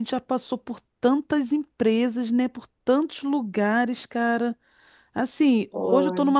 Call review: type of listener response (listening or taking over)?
listening